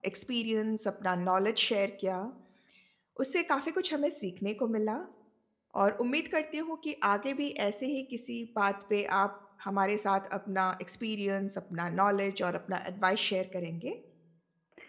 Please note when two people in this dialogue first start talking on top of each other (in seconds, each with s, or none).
none